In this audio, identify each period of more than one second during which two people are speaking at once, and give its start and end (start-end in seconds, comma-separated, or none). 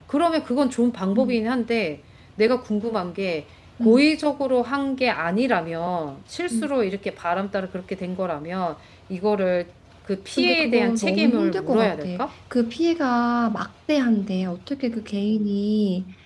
10.4-12.1